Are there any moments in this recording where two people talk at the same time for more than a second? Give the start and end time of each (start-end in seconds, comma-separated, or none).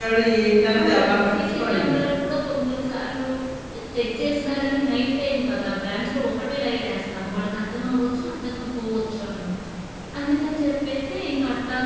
0.7-1.9